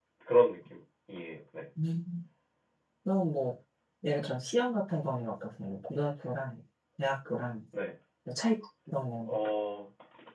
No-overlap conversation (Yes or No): Yes